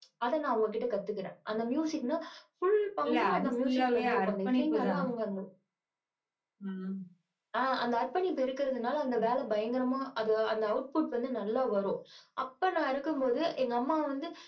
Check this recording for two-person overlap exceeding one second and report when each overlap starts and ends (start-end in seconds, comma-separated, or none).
3.1-5.0